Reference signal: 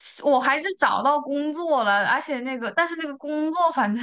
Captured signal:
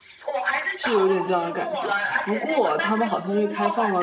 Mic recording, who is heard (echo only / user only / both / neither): both